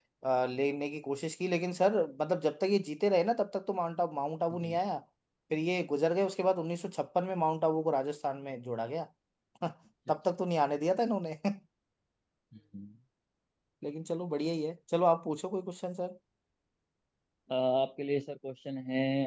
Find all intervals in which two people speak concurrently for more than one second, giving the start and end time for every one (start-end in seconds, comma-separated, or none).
none